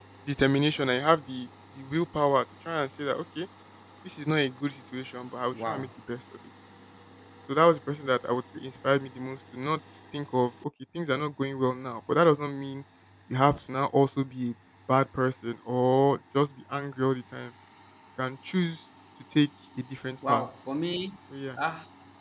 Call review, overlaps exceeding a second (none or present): none